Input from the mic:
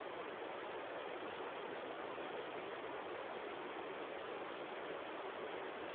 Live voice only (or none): none